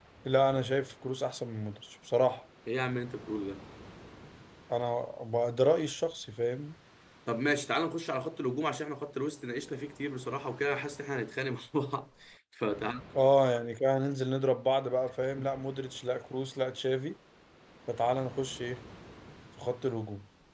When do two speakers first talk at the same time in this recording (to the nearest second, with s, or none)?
none